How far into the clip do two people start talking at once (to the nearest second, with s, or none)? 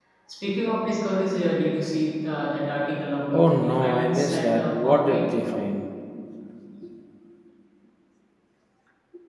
3 s